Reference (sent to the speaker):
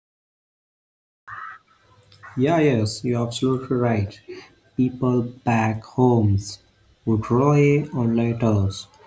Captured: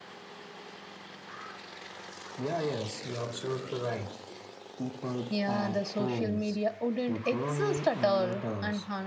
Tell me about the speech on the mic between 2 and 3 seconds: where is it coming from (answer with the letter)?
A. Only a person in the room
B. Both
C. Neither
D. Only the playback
D